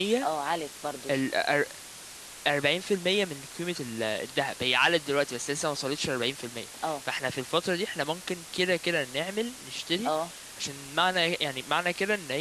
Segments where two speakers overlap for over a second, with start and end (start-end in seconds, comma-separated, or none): none